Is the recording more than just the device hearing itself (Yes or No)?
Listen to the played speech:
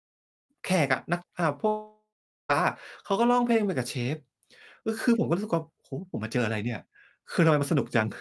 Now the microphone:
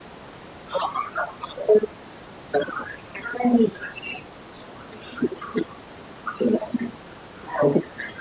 No